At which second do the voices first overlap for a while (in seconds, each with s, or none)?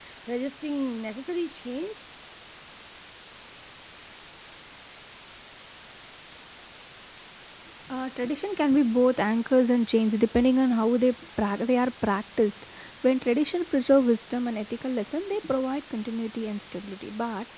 none